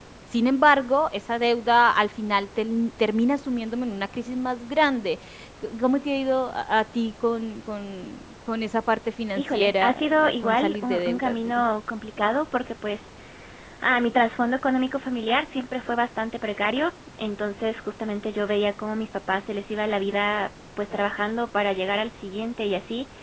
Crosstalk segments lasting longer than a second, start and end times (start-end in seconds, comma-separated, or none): 9.4-11.6